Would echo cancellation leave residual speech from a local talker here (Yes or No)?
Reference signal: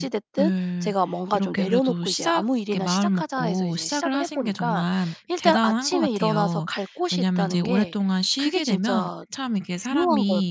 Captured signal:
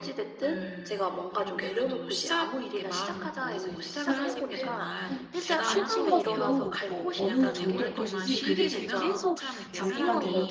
Yes